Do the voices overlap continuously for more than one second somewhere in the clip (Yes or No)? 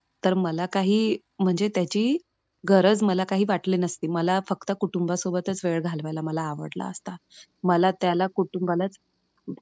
No